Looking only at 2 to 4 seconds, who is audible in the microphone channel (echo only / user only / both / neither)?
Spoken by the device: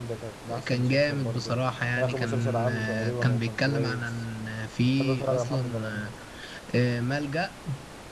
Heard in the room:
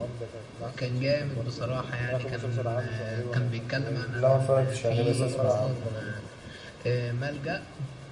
echo only